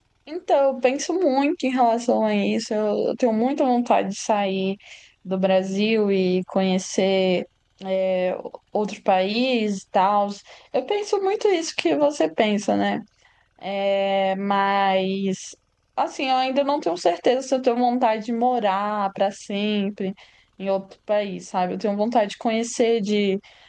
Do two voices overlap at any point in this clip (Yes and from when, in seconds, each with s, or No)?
No